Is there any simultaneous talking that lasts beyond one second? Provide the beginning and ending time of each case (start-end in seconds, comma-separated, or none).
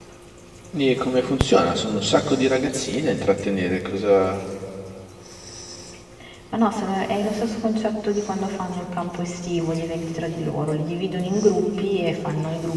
none